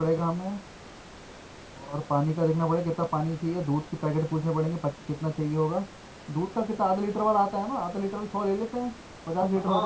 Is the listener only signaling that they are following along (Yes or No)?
No